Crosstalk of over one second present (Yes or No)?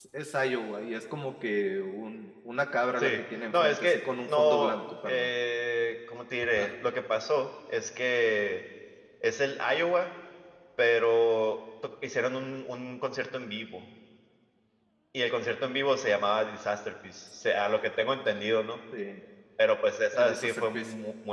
Yes